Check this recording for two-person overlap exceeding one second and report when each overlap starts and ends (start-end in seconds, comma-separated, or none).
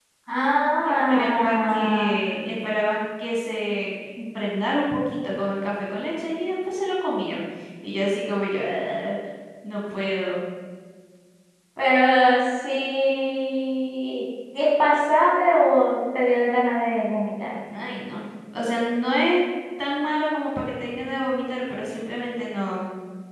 0.8-2.1